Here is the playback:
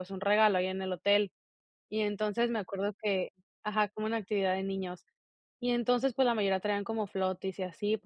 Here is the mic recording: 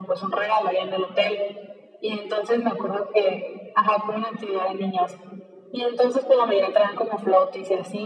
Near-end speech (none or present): none